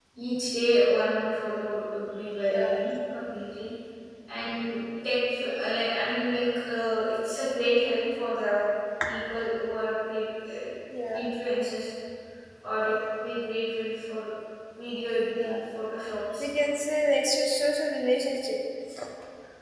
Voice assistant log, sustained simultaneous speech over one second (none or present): none